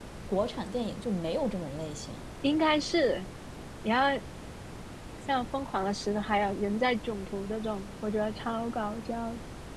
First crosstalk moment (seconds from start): none

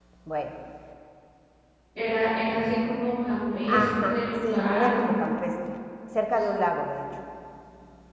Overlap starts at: 3.6 s

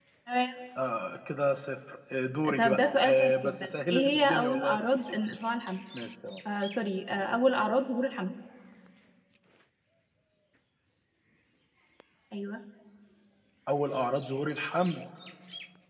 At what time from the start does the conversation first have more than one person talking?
2.4 s

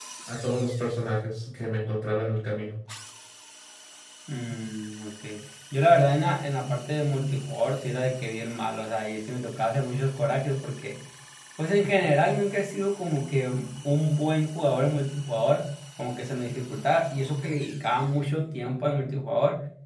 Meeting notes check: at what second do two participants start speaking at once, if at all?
none

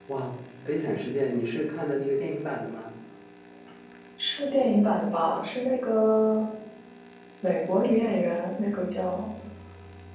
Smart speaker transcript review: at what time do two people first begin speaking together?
none

